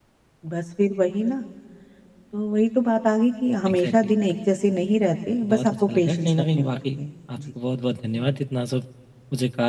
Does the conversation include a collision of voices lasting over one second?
Yes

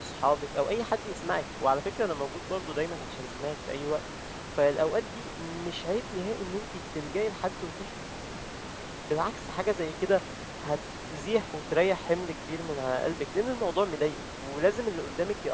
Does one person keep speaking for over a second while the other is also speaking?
No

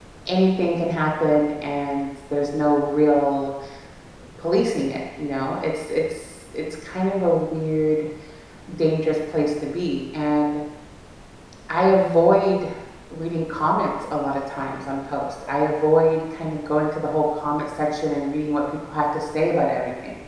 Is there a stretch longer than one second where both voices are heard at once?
No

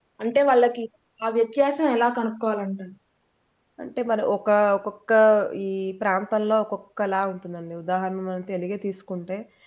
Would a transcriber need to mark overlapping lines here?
No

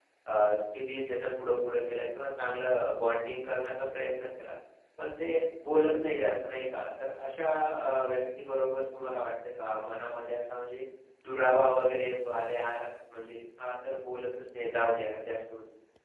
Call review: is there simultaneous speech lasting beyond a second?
No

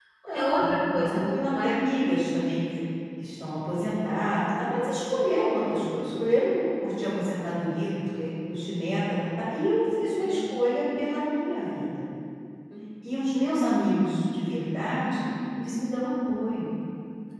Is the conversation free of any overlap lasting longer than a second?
No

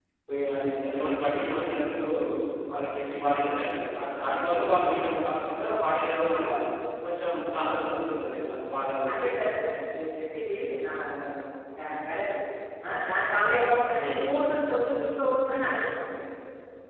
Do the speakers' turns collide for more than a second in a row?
No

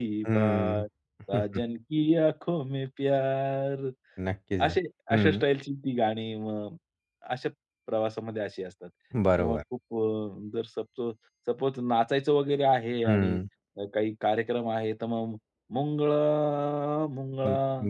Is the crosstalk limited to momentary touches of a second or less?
Yes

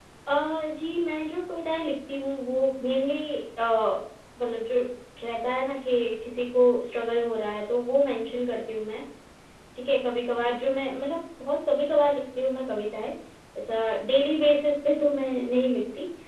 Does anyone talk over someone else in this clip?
No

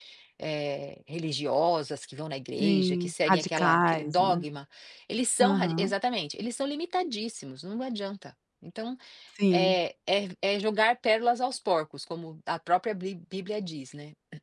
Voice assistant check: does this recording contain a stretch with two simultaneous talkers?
Yes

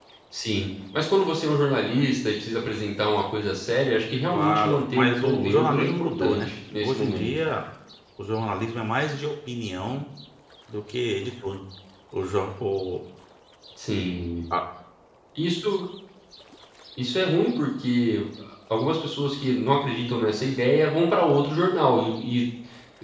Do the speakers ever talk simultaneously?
Yes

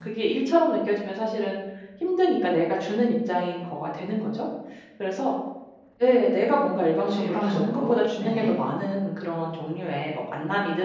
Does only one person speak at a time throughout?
No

